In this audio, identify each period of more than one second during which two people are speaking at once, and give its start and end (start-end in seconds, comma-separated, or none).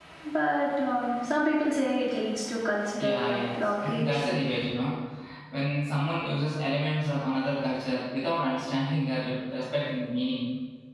3.0-4.4